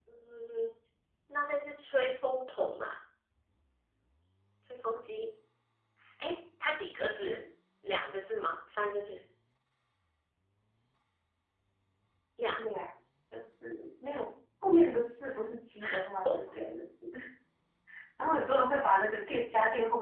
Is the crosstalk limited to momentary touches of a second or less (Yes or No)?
Yes